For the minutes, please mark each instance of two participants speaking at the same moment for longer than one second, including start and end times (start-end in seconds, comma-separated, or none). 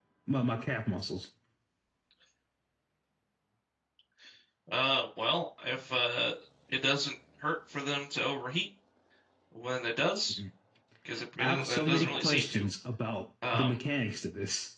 11.4-12.7